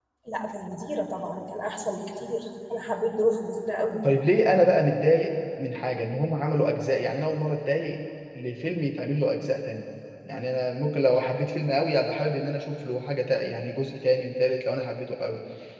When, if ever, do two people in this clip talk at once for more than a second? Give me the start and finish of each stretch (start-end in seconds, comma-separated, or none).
none